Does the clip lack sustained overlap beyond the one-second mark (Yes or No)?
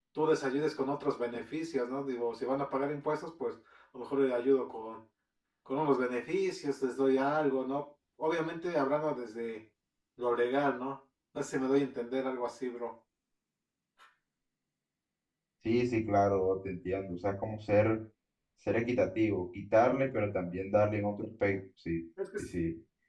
Yes